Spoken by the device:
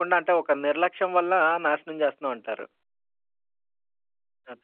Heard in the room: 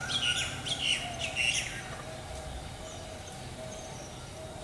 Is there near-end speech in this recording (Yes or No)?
No